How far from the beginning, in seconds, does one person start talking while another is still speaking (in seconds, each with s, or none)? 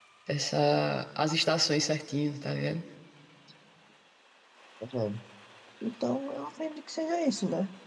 none